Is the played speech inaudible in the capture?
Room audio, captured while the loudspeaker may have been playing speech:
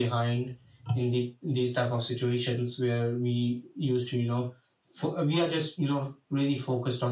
No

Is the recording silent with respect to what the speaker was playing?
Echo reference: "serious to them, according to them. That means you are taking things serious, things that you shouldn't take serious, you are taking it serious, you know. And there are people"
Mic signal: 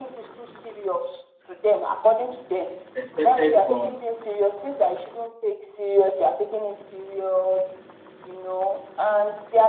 No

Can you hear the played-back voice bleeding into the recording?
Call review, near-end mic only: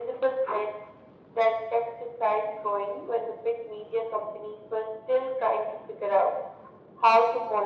Yes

